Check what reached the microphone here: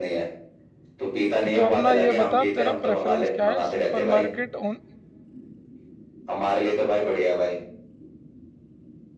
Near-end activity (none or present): present